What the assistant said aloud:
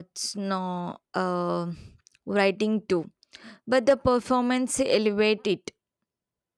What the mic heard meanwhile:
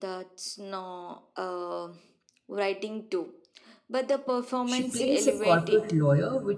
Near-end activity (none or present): present